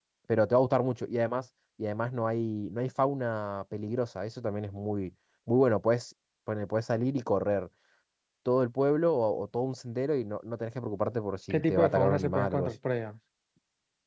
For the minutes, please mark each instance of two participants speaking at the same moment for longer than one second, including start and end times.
11.5-12.7

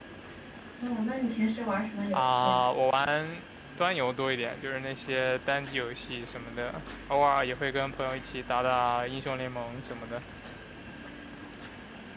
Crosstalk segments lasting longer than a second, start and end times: none

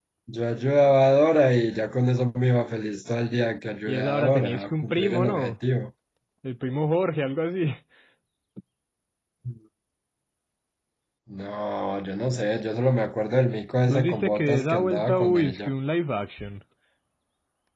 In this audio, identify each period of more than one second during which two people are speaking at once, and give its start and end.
3.8-5.5, 13.8-15.7

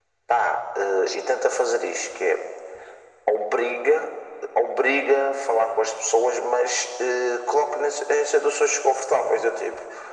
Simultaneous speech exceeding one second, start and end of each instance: none

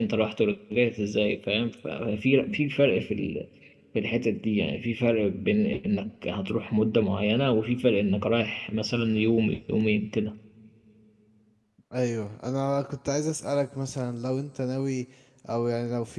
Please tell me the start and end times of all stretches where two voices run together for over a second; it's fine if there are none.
none

